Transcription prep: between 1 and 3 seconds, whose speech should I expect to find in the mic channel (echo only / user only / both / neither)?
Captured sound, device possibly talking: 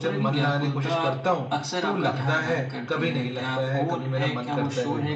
echo only